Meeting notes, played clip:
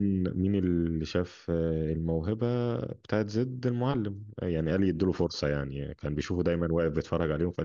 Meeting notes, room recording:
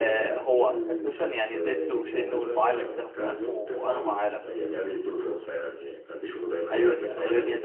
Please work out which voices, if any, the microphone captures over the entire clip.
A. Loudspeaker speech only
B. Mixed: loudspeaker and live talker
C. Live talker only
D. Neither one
B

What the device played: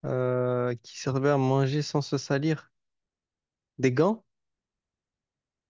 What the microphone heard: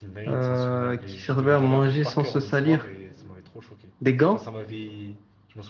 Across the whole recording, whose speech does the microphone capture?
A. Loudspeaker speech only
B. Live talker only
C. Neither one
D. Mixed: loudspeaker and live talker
D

